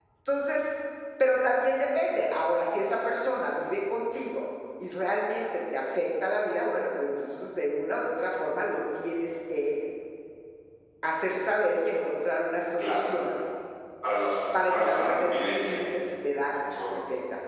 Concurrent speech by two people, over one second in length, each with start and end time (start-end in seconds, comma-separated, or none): 14.5-15.8